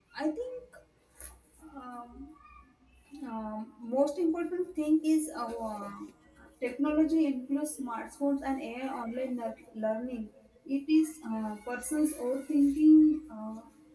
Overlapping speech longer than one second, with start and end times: none

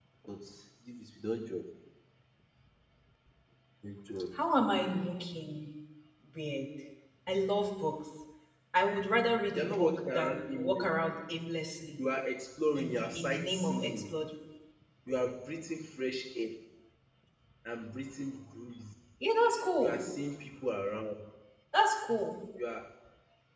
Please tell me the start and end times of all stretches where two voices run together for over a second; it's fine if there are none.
9.5-10.8, 12.8-14.2

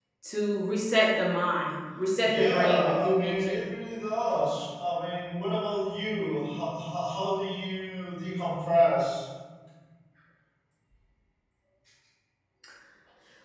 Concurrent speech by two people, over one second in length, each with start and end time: 2.2-3.6

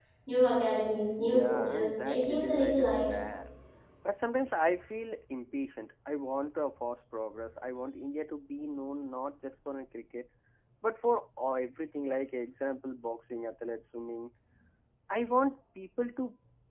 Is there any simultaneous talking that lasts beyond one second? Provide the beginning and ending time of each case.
1.3-3.1

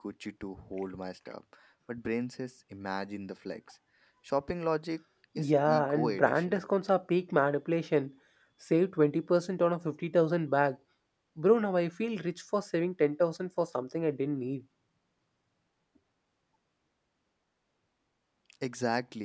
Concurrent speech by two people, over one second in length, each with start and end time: 5.4-6.6

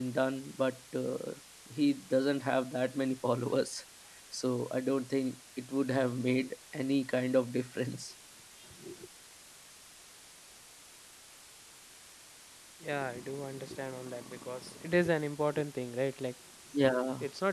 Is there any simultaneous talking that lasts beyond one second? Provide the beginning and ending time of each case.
none

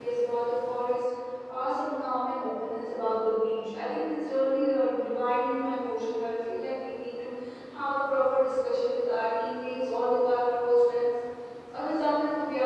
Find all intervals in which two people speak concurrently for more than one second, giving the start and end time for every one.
none

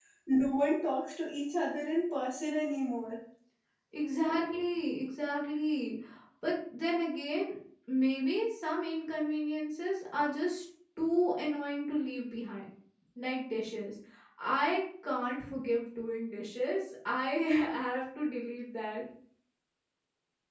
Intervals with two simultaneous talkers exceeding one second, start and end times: none

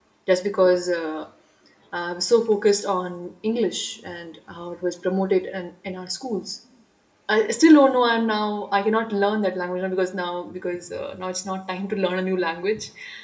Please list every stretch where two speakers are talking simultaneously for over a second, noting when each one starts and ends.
none

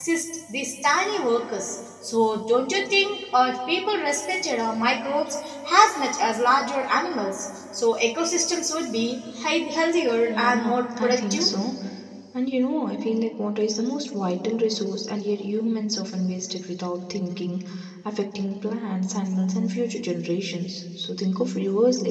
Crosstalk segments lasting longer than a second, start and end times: 10.3-11.5

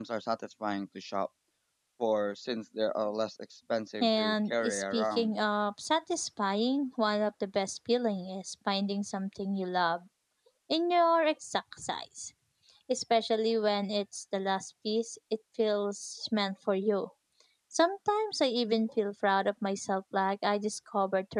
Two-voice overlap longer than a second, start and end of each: 4.0-5.3

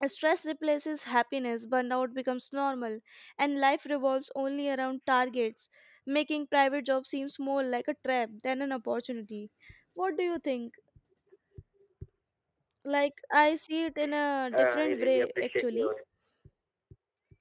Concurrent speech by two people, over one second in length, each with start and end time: 14.5-15.9

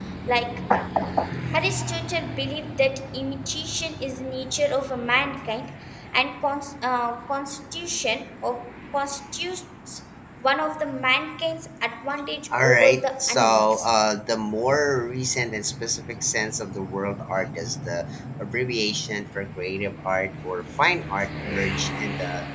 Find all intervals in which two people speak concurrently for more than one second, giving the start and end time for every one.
12.6-13.9

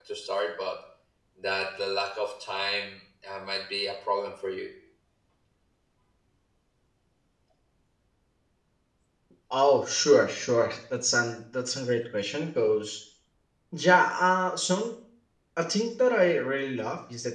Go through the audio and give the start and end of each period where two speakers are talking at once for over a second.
none

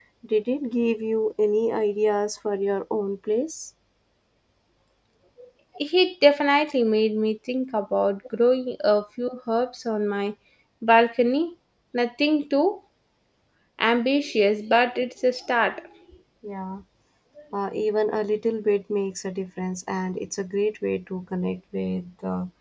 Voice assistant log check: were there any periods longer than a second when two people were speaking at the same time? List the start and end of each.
none

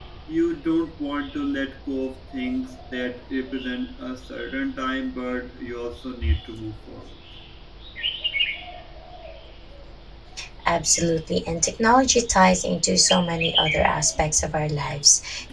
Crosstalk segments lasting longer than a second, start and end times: none

